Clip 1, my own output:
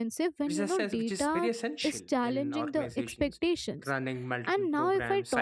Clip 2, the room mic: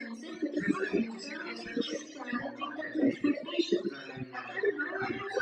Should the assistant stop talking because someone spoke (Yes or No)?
No